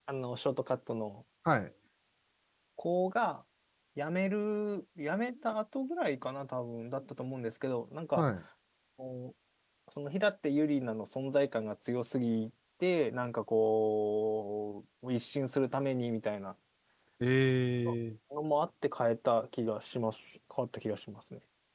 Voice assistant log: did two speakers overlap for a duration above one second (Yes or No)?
No